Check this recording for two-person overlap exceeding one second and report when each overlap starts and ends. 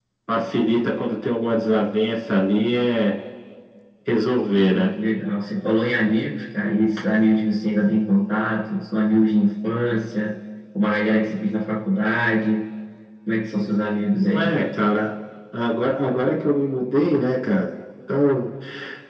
none

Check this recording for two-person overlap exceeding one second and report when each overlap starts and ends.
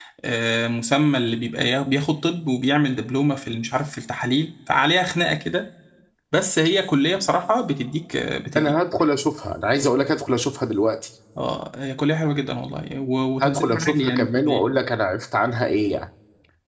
13.4-14.7

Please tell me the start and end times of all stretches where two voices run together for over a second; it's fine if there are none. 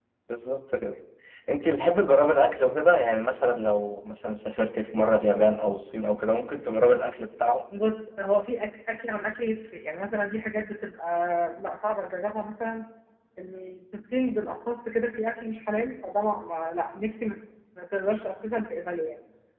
none

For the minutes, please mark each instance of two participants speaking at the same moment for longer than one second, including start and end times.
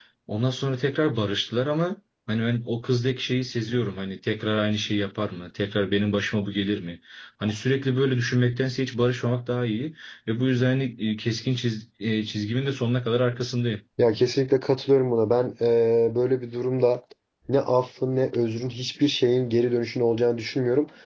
none

